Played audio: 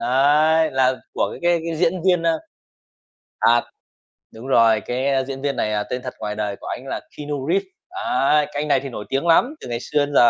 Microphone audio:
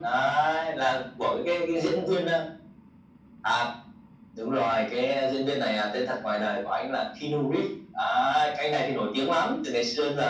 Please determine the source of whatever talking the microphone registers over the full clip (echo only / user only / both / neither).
echo only